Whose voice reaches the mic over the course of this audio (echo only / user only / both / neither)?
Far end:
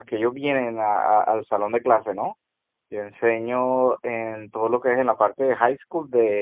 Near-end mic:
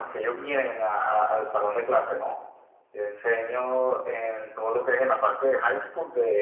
echo only